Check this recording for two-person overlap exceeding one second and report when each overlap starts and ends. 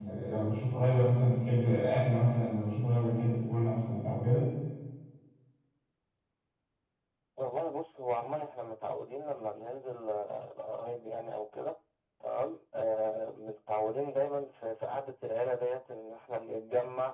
none

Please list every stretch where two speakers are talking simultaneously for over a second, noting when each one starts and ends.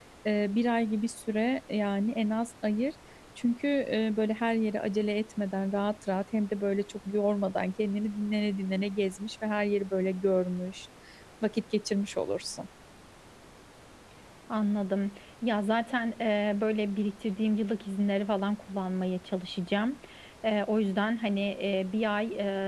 none

